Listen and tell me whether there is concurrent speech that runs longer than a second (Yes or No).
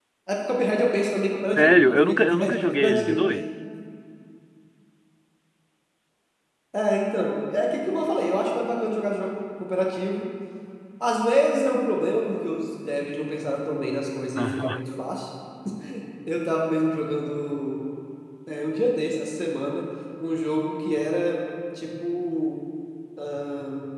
Yes